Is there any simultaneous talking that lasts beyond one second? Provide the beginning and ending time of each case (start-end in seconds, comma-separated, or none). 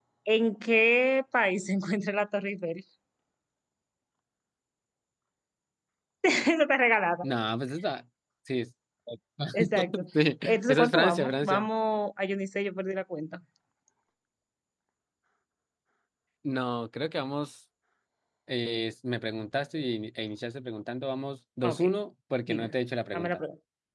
10.4-11.7